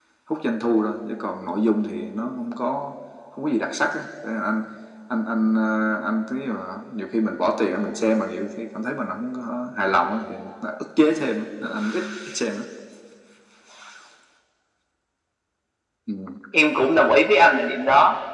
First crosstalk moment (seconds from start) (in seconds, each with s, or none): none